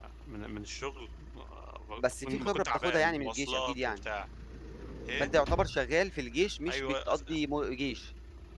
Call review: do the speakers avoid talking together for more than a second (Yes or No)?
No